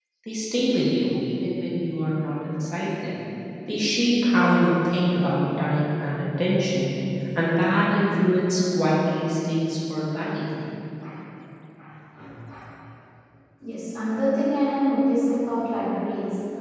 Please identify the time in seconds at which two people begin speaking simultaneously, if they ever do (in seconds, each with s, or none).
none